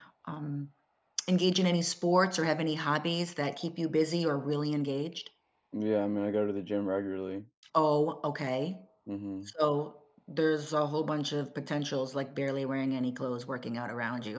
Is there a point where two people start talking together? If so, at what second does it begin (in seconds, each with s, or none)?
none